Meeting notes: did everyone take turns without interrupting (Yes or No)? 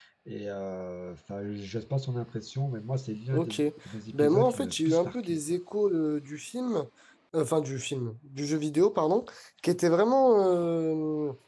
No